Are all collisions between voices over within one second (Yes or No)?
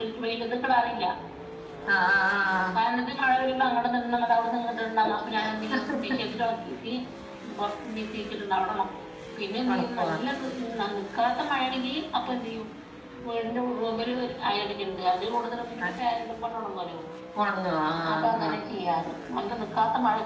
Yes